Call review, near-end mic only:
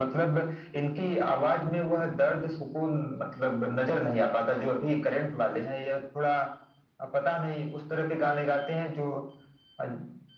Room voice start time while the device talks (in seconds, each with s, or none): none